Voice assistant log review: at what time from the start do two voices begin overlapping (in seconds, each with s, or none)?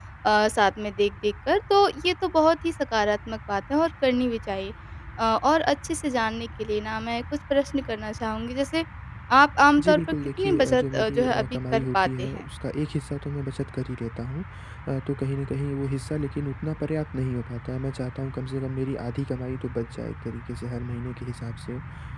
9.8 s